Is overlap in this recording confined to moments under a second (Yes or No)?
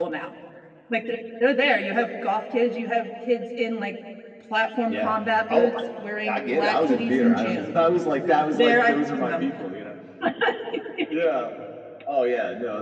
No